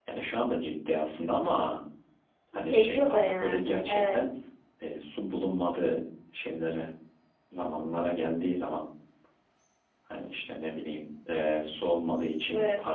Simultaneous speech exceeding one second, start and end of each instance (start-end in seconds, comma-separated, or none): 2.5-4.2